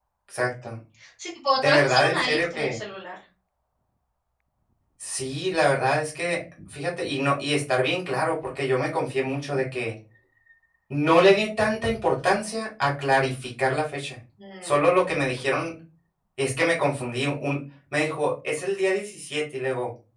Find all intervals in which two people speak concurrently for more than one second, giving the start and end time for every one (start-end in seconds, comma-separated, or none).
1.6-2.8